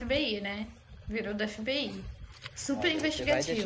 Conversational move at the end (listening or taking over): taking over